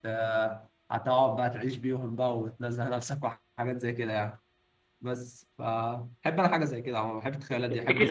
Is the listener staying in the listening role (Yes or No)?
No